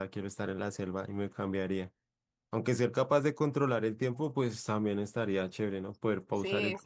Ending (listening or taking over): taking over